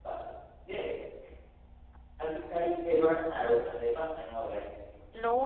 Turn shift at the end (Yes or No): Yes